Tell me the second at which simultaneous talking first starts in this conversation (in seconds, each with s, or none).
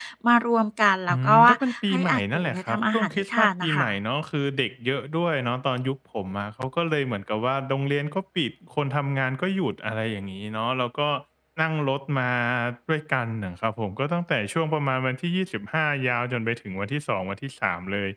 1.1 s